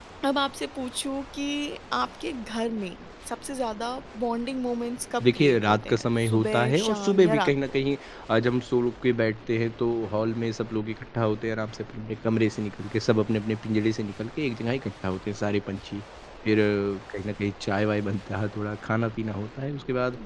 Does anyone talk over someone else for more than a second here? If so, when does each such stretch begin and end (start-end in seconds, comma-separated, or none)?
5.2-7.5